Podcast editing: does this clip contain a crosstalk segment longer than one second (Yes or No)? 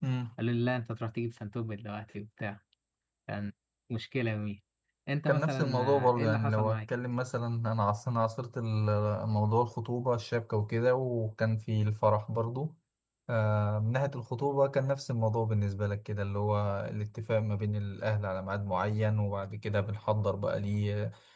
Yes